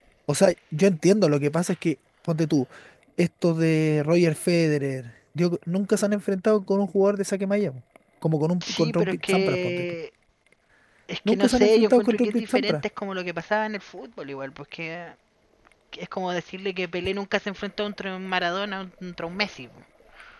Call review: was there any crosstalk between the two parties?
Yes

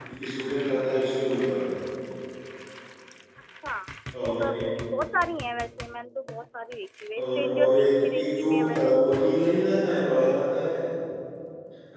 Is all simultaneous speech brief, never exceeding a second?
No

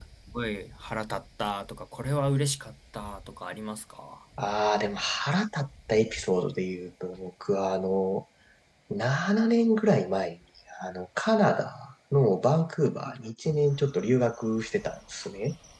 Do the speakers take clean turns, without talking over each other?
Yes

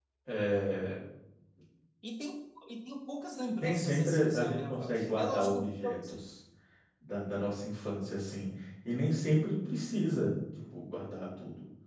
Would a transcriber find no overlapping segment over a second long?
No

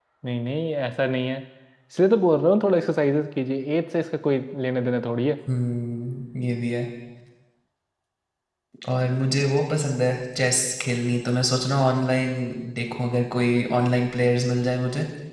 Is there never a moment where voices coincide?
Yes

